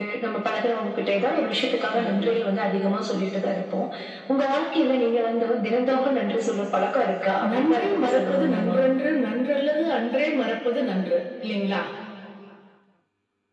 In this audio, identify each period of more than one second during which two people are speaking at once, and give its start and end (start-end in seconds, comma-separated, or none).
7.5-8.8